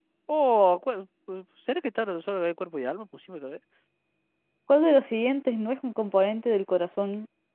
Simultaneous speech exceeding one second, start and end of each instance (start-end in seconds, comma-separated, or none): none